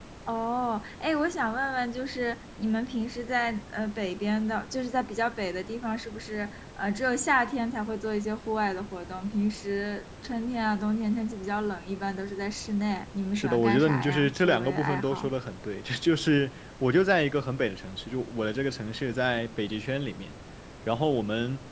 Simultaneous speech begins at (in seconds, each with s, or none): 13.3 s